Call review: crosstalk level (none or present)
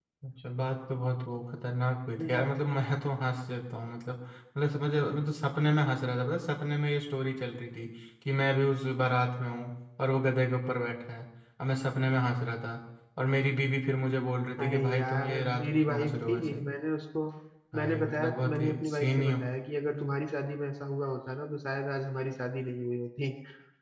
present